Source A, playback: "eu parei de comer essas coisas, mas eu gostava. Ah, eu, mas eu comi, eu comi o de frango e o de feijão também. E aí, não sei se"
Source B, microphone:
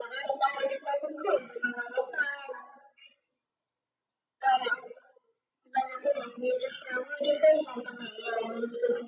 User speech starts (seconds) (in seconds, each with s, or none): none